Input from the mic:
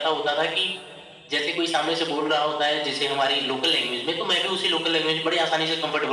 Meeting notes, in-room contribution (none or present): none